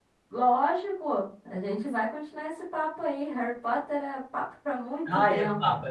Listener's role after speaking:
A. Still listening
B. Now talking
B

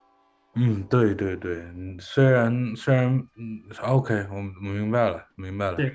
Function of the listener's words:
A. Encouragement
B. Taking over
B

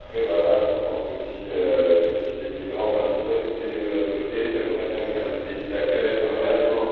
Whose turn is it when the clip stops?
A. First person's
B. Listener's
A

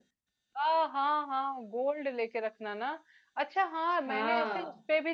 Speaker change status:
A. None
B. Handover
A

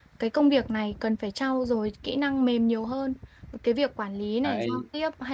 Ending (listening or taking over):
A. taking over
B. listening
B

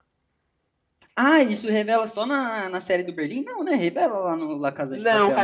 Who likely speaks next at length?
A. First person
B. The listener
B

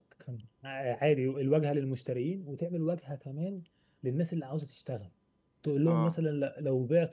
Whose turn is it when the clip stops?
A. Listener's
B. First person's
B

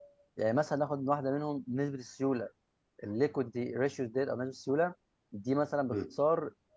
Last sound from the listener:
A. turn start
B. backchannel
B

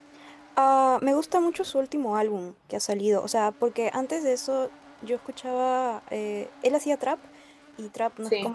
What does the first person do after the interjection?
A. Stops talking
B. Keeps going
B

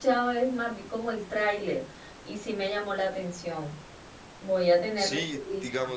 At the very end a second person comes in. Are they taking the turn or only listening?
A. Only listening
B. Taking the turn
B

